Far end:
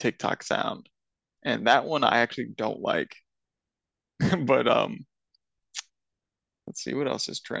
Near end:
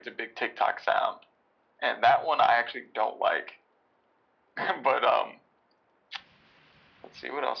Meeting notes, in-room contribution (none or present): none